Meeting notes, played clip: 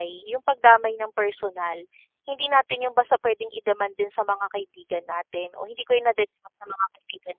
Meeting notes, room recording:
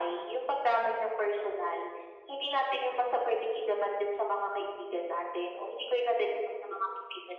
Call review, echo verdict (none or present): present